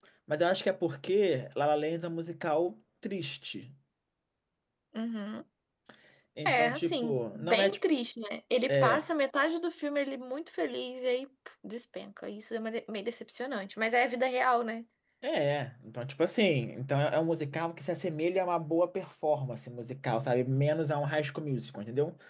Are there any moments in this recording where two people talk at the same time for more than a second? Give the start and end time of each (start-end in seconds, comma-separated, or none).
6.5-7.8